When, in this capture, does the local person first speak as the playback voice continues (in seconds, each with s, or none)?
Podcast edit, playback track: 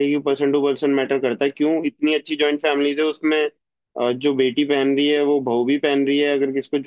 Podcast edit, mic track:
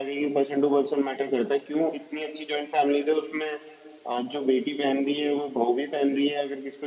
none